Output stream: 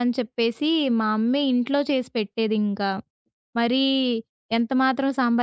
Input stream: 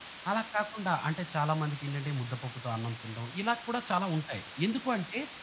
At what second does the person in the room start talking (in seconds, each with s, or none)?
0.3 s